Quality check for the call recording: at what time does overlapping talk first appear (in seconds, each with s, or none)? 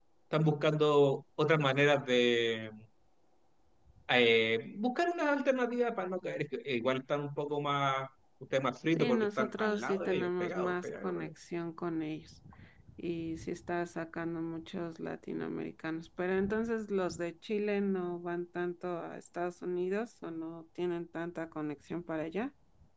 8.9 s